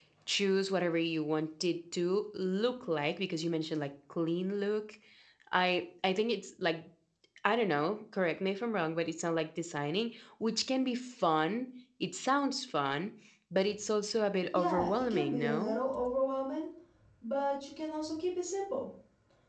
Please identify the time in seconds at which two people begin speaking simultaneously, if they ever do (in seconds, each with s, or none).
14.5 s